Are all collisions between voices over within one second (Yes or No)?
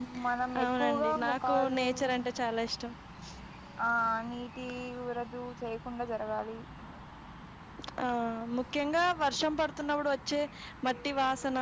No